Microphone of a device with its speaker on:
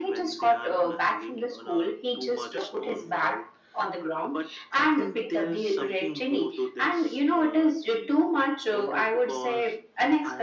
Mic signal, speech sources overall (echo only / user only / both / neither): echo only